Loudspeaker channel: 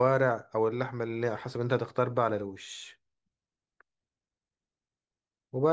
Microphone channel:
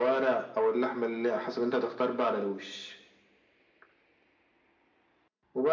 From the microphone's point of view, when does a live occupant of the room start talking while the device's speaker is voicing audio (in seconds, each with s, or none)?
none